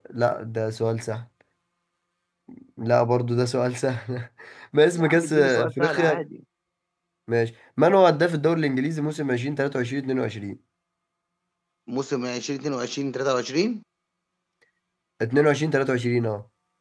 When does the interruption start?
4.9 s

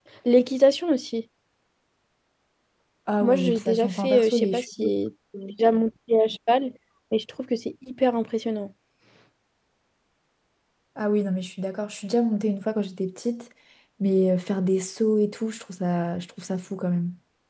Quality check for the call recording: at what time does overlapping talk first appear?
3.2 s

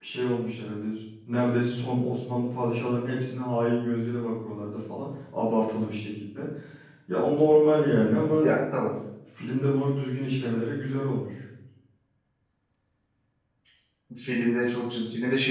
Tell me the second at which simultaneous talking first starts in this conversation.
none

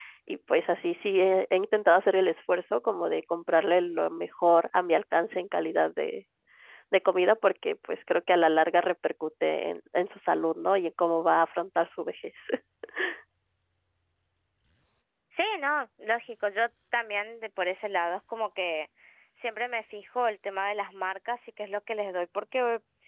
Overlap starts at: none

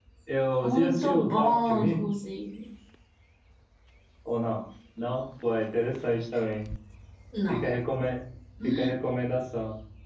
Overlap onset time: 0.6 s

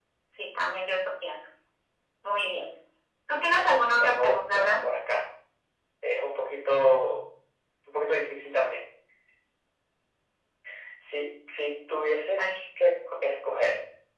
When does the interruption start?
3.6 s

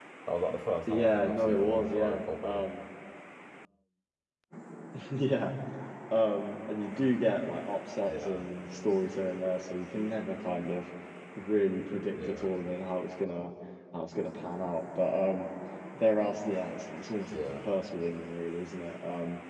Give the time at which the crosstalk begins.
0.9 s

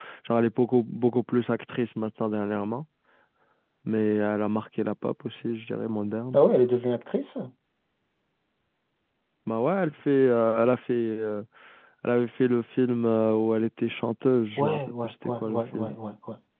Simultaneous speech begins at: 14.6 s

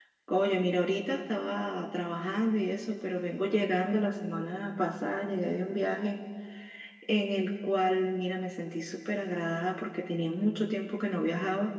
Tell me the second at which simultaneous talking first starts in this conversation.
none

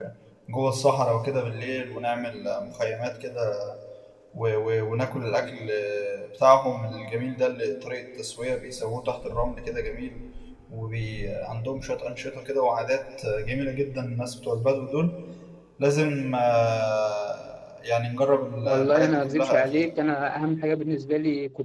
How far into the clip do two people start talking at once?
18.6 s

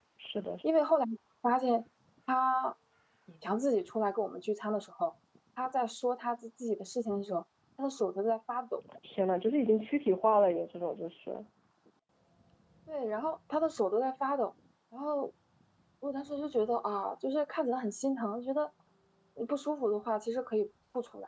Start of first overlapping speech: none

